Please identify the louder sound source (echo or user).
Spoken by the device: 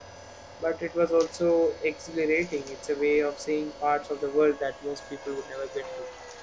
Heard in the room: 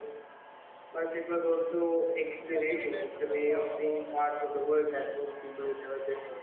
echo